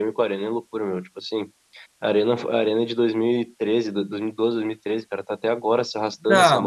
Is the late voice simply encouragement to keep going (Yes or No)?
No